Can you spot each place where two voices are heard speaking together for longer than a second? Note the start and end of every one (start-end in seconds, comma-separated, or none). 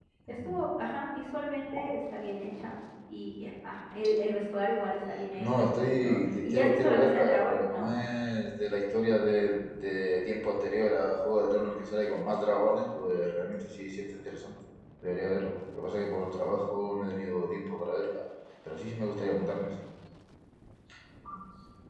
5.4-7.9